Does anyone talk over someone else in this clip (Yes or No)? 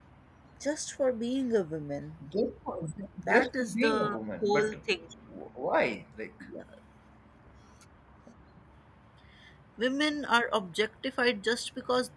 Yes